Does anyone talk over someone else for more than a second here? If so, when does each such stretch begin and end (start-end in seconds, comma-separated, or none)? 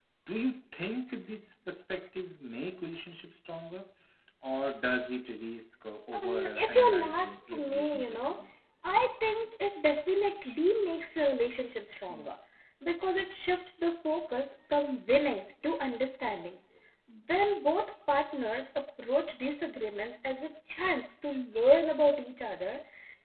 6.1-8.4